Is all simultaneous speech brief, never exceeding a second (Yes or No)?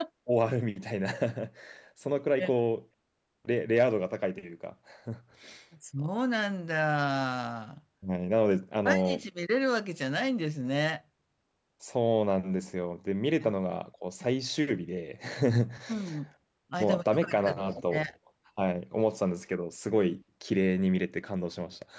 No